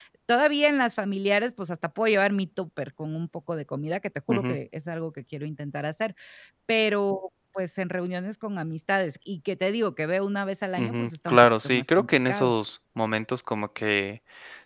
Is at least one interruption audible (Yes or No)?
Yes